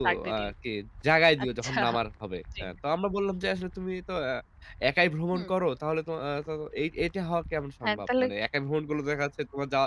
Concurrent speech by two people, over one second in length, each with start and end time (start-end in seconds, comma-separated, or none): none